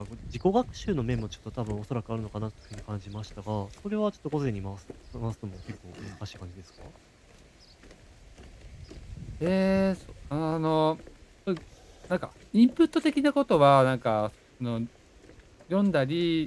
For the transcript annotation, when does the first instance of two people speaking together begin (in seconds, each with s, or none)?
none